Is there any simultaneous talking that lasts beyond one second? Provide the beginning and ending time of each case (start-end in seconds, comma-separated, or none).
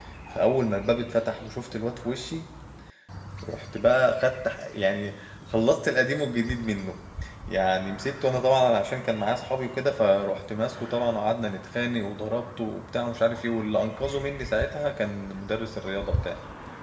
none